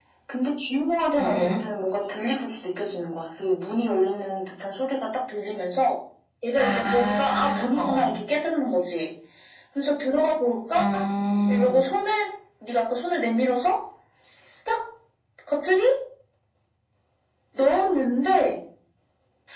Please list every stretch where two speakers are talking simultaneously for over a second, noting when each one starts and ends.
6.6-8.2

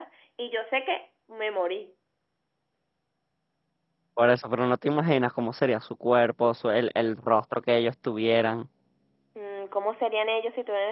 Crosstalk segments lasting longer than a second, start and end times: none

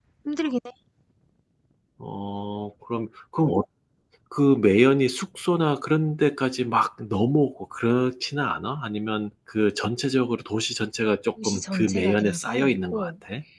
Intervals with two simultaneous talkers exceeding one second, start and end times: 11.4-13.1

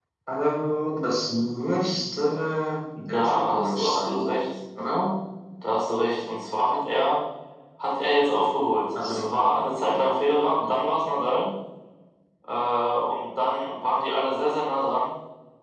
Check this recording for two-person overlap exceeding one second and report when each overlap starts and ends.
3.1-4.3

